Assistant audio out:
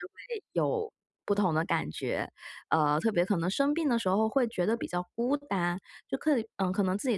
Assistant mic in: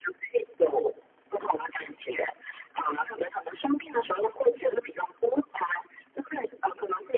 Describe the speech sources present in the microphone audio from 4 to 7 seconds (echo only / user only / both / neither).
echo only